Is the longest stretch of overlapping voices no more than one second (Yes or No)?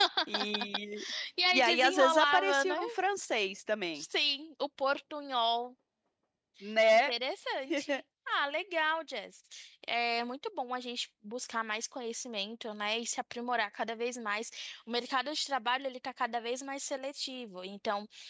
No